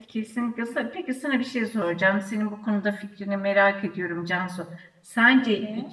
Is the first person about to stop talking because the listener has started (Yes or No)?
No